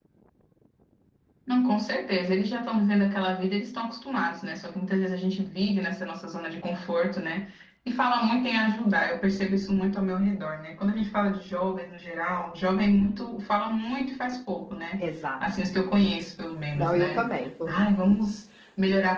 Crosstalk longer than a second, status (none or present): none